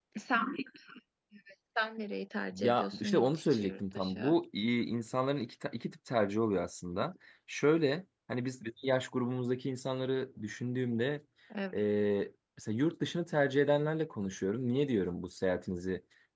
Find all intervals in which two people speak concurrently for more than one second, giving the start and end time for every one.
2.5-4.3

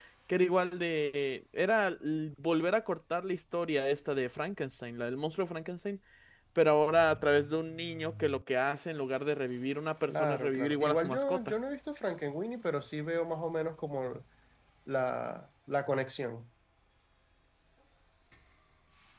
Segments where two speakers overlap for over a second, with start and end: 10.1-11.4

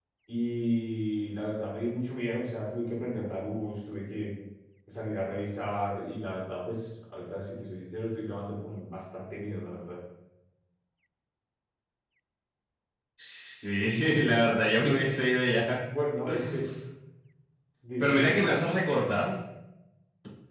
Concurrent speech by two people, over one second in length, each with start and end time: none

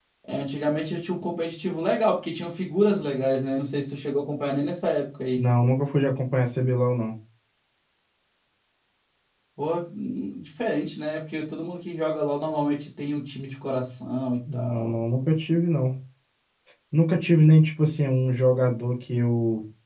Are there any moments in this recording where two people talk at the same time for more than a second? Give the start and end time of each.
none

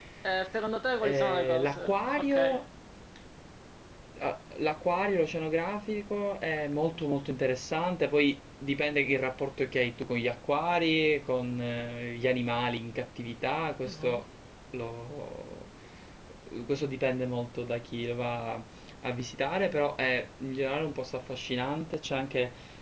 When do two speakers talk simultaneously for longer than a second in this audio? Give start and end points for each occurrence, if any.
1.0-2.6

